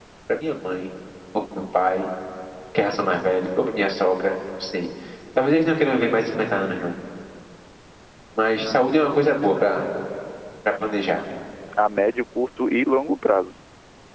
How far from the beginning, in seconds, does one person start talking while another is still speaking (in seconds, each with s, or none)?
none